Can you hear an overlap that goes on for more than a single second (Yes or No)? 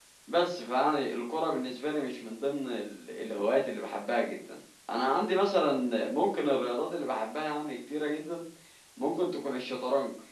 No